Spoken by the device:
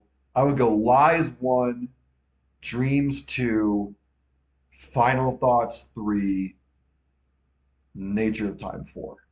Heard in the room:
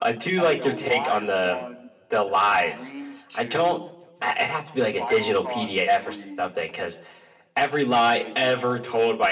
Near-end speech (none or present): present